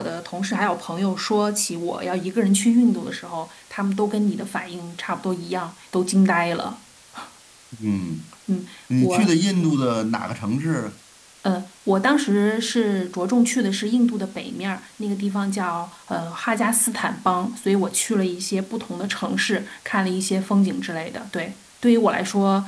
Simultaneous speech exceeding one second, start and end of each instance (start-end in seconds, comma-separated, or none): none